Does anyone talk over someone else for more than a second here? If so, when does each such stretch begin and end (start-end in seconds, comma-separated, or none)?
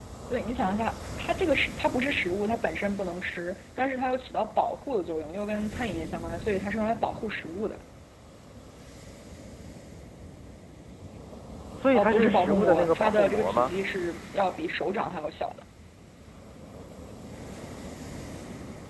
11.9-13.7